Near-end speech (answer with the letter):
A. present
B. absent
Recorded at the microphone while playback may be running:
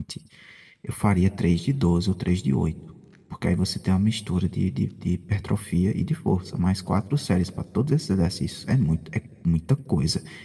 A